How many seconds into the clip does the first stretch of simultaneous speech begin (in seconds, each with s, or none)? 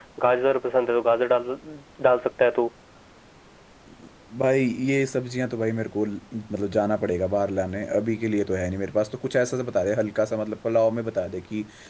none